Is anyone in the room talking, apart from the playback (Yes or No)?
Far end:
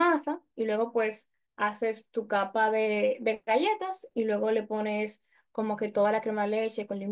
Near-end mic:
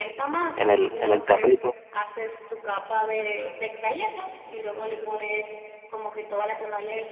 Yes